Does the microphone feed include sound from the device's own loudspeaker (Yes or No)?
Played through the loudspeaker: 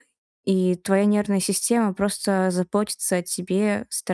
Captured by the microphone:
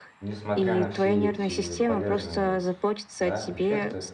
Yes